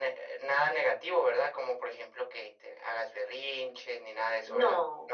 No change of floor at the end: No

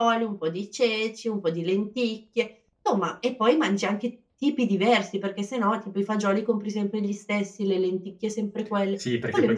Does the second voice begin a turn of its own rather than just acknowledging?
Yes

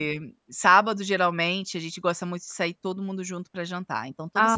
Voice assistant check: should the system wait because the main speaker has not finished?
No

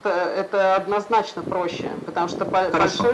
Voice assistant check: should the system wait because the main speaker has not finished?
Yes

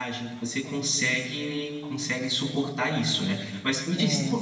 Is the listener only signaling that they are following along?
Yes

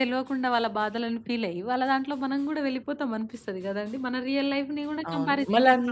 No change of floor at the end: No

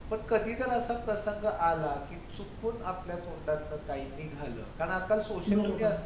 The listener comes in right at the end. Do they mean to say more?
No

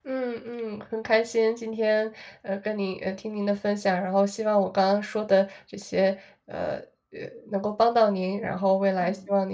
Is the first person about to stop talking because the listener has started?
No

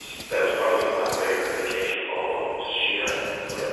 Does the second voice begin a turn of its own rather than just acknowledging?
Yes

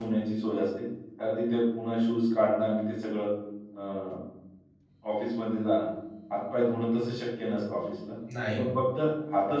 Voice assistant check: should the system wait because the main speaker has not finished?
Yes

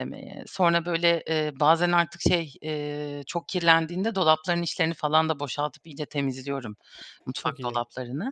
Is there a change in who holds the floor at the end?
No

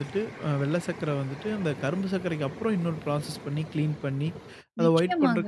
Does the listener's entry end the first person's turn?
No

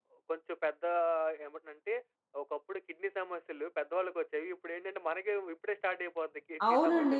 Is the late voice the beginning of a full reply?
Yes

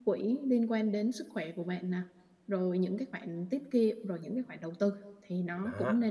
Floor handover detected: Yes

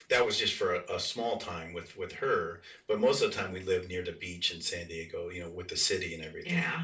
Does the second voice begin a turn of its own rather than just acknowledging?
Yes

